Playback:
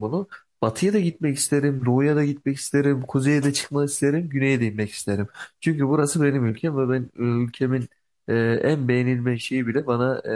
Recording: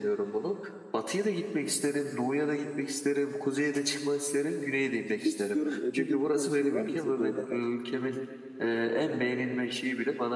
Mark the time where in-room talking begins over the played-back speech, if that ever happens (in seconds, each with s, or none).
5.0 s